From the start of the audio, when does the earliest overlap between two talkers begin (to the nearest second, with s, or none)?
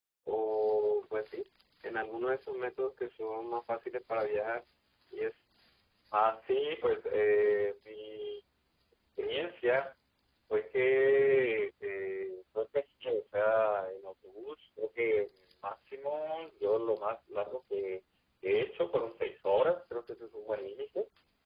none